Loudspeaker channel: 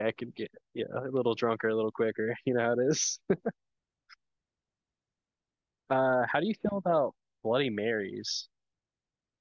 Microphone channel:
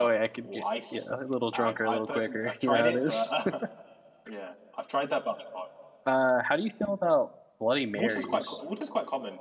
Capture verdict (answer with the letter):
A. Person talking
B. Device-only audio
A